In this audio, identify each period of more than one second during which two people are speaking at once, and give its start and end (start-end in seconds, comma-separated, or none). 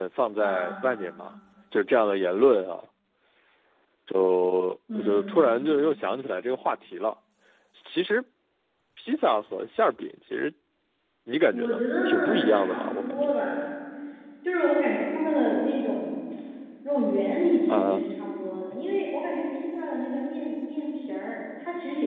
11.5-13.3